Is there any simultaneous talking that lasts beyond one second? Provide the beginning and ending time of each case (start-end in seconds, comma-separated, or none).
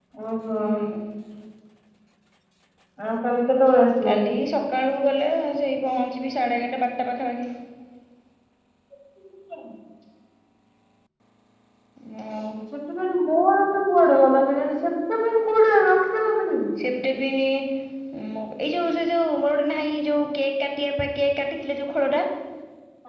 none